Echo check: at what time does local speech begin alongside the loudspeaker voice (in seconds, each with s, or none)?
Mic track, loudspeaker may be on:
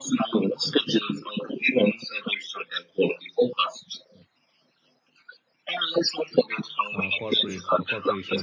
6.9 s